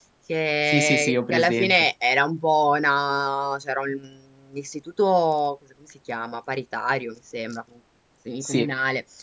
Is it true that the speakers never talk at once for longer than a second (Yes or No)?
No